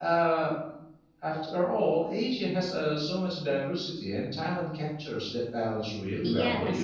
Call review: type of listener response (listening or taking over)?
taking over